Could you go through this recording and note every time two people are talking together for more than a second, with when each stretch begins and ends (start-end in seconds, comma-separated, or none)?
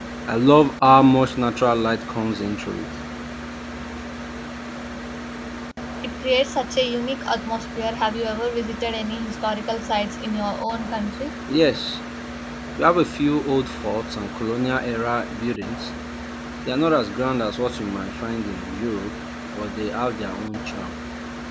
none